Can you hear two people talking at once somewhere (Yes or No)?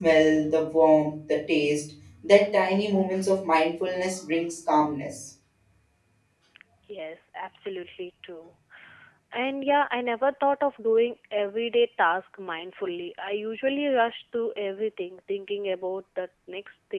No